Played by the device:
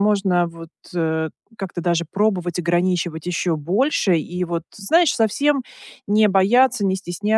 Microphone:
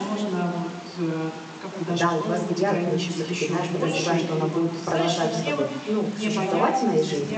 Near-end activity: present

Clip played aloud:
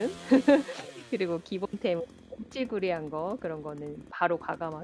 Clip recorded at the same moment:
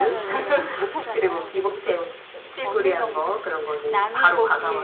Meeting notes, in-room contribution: present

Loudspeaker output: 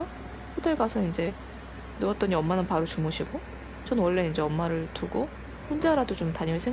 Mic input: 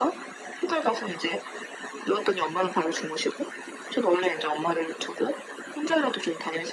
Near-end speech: none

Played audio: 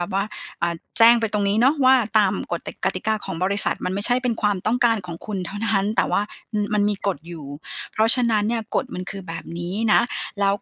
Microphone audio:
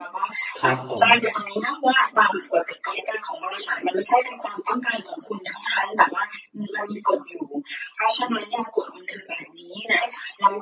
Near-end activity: present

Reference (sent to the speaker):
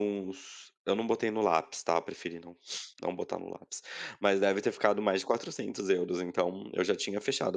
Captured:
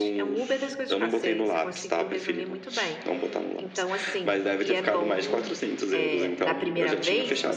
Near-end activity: present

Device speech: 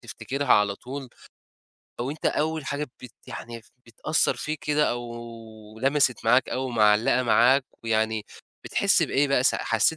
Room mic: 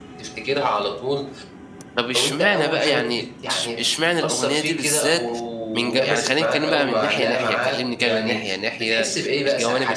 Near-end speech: present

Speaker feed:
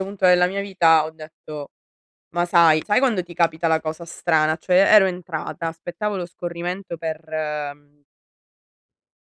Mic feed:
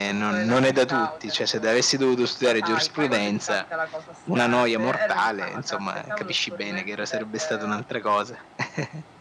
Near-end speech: present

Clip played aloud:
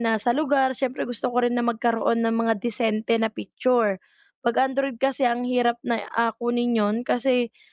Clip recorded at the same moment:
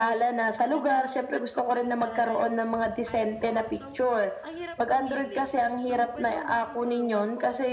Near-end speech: present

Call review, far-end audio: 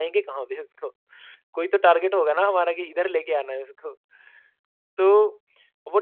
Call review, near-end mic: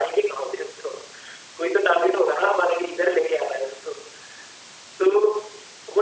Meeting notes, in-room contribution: none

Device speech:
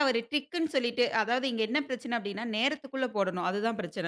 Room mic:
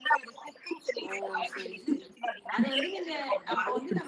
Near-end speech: present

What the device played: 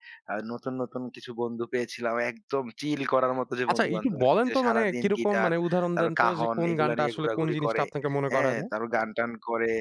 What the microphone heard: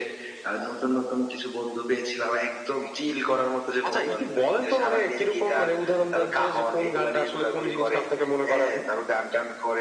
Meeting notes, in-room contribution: none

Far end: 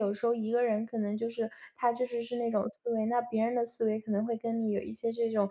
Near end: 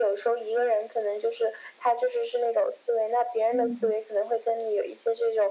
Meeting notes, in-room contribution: present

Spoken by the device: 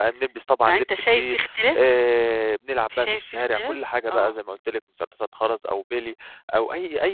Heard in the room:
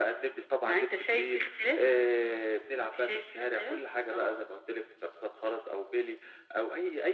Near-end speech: none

